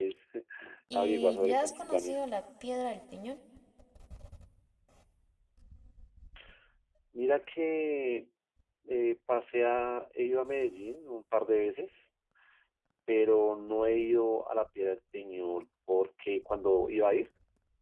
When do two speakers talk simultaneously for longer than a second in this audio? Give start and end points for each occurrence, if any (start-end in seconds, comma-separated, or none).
0.9-2.2